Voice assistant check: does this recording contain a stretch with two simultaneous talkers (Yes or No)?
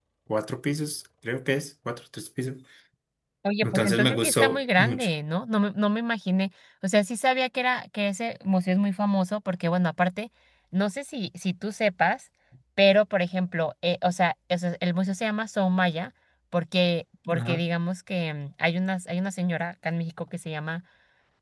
Yes